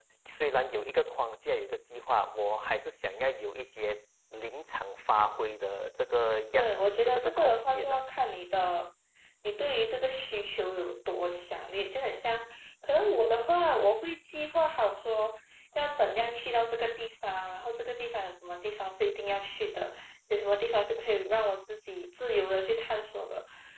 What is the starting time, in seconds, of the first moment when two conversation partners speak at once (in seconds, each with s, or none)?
6.5 s